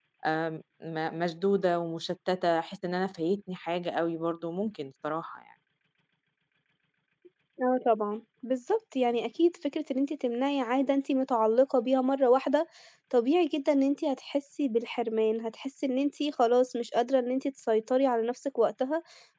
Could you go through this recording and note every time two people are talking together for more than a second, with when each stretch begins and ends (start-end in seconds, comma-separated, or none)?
none